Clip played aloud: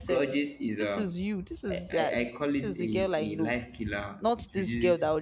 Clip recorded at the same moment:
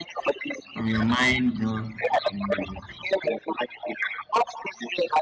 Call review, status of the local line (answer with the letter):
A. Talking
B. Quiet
A